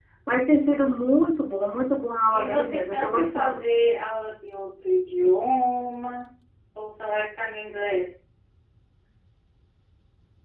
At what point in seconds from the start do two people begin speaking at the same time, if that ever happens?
2.3 s

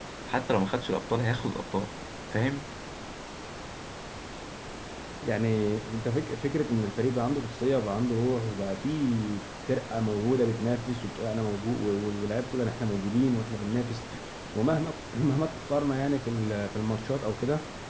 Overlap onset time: none

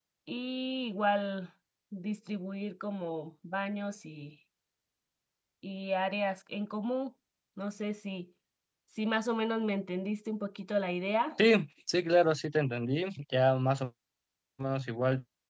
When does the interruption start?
none

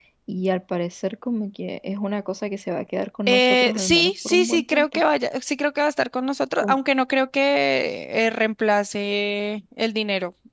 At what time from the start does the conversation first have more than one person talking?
3.3 s

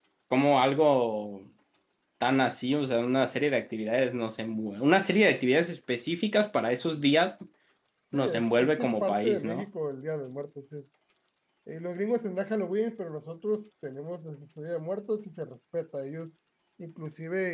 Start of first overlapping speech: 8.1 s

